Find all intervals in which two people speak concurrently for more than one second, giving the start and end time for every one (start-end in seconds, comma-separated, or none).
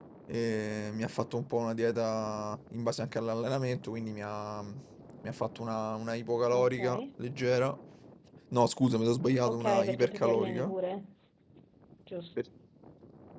9.5-10.7